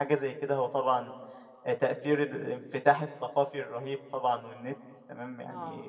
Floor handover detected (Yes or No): No